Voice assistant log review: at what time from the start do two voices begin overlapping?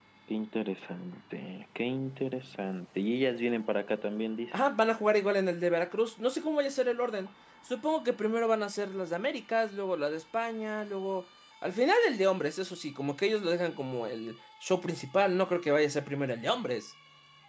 none

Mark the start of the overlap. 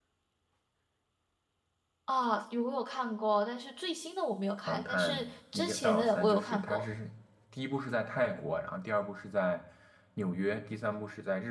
4.6 s

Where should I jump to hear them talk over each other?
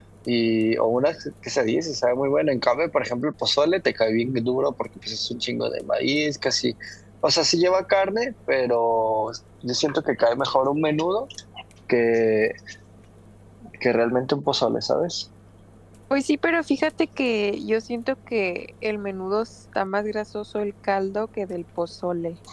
none

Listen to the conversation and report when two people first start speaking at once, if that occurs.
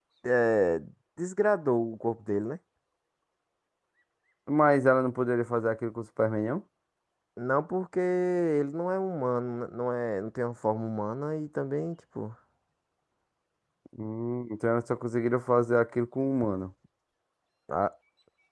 none

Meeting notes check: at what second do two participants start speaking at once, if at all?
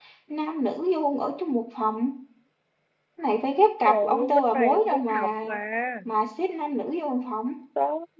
3.9 s

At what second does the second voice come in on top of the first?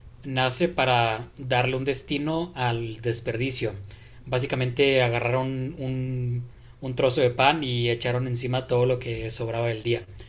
none

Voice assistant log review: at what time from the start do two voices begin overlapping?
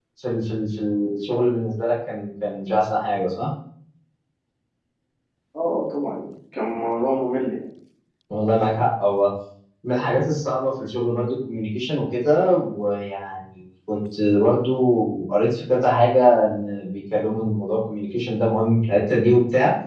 none

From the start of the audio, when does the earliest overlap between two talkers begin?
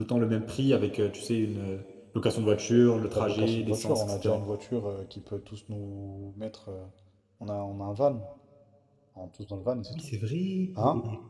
3.2 s

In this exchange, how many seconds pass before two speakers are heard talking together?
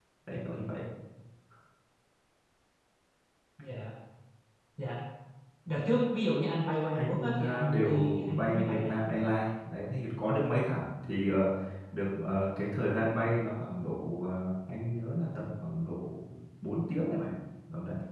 7.0 s

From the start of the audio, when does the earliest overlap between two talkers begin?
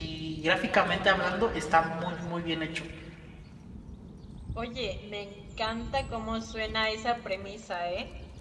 none

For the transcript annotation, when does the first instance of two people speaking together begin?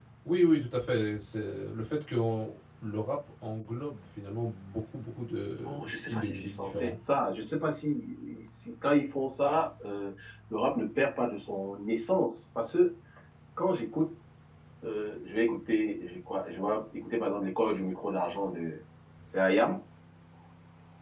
5.7 s

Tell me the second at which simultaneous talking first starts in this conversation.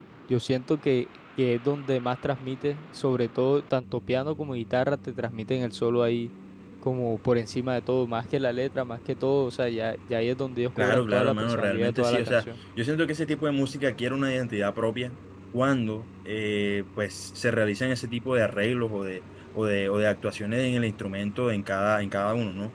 10.8 s

